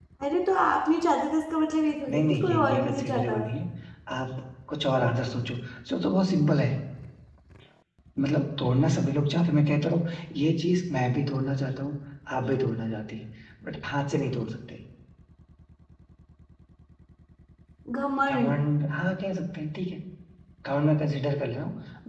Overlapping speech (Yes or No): Yes